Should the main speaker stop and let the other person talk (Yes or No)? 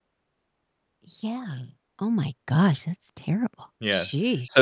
Yes